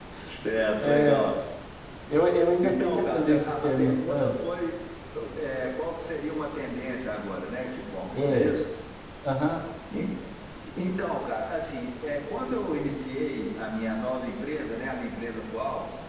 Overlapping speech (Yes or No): Yes